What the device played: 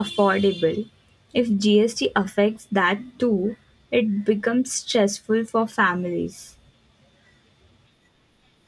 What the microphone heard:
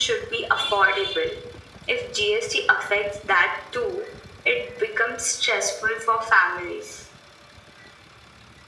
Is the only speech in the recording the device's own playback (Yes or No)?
Yes